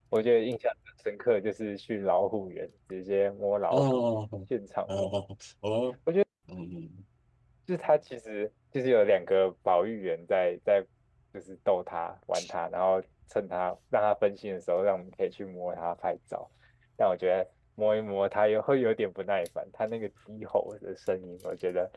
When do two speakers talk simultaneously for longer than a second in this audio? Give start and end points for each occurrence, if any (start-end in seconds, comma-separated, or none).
none